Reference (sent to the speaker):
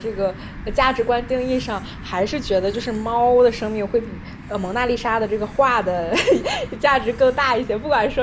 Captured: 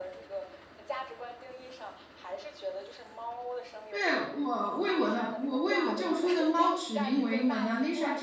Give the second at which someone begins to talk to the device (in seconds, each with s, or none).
3.9 s